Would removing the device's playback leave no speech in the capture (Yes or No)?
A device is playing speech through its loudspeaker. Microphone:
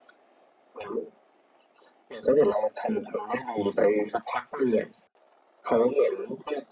Yes